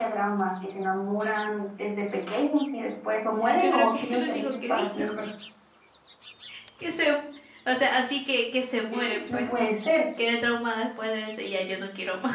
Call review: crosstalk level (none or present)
present